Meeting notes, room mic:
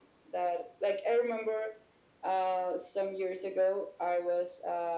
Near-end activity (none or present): none